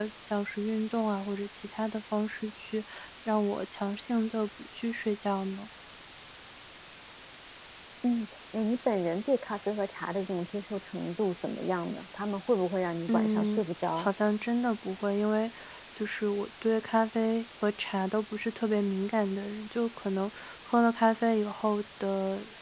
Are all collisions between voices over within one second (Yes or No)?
Yes